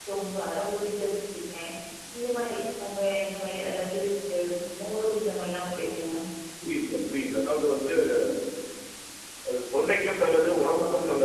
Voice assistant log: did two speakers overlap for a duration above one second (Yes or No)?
No